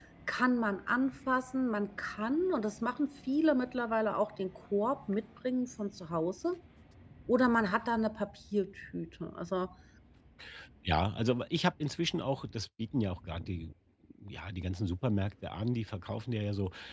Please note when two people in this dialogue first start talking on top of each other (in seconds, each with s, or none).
none